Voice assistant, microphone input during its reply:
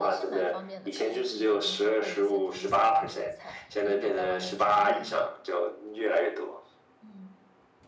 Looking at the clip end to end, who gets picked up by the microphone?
both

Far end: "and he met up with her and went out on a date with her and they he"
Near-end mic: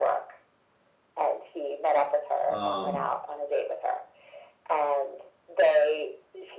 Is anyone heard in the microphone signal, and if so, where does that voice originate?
both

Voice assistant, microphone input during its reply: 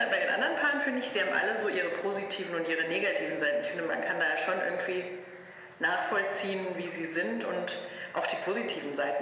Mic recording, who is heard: echo only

